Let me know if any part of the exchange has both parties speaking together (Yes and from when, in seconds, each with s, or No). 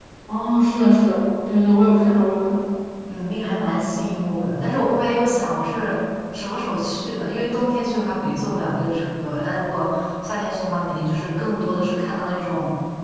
No